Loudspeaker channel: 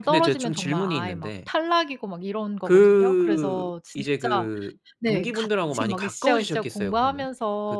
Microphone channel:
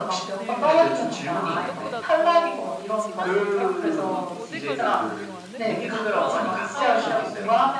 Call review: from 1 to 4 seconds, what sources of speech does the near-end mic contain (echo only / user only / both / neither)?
both